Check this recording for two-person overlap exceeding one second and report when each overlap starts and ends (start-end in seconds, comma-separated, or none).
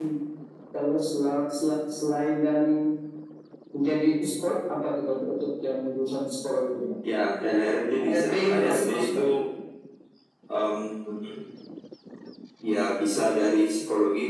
8.0-9.2